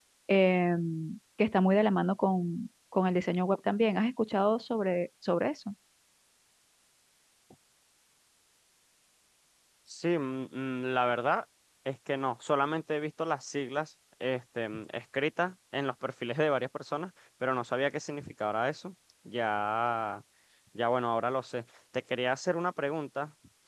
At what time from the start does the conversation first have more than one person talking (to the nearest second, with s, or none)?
none